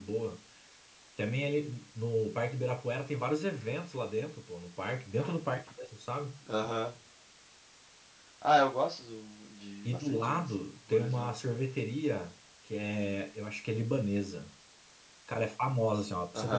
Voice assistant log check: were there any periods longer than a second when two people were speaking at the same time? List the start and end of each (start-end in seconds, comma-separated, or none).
9.8-11.4